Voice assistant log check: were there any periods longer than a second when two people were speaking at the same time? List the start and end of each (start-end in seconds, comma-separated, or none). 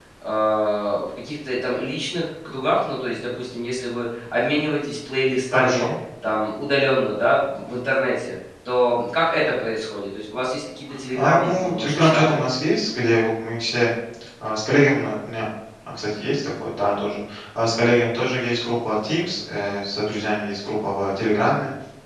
11.1-12.4